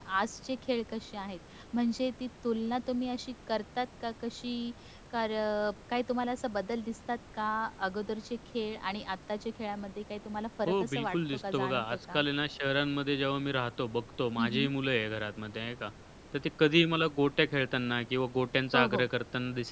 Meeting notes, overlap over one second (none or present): present